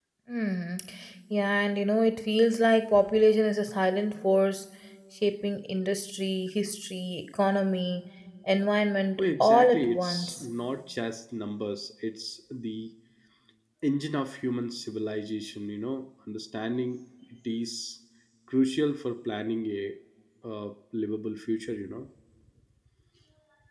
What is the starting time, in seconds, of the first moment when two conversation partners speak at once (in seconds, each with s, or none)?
9.2 s